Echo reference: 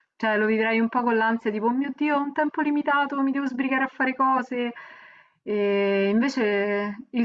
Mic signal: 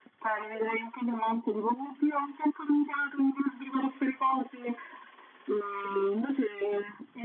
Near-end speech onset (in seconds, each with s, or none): none